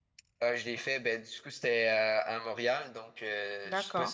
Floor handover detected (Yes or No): No